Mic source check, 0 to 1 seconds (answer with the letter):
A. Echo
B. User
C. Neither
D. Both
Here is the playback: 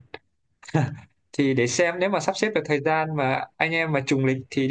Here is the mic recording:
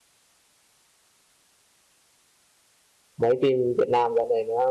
C